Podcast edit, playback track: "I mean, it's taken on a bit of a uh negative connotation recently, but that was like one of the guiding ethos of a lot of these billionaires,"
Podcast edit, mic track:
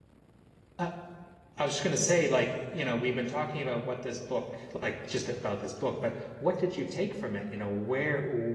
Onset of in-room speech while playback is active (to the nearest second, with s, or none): 1 s